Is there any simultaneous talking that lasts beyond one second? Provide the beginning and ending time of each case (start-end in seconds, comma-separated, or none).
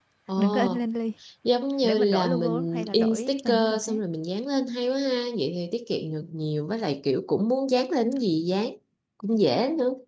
1.8-4.0